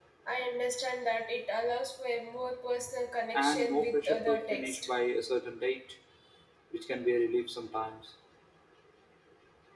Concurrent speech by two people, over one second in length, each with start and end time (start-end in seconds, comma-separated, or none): 3.3-4.9